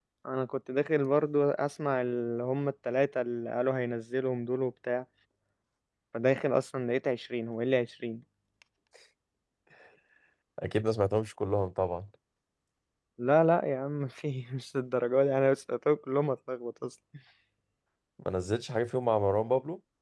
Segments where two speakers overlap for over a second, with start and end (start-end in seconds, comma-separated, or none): none